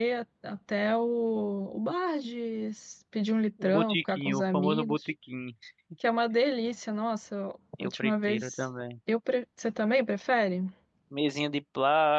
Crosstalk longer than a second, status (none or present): present